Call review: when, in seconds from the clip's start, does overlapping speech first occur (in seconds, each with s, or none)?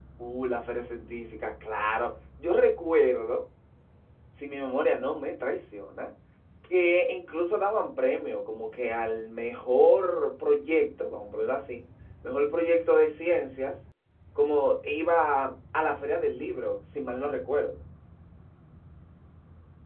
none